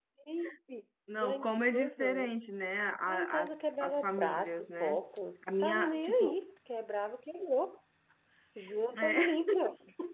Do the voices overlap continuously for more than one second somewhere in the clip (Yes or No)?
Yes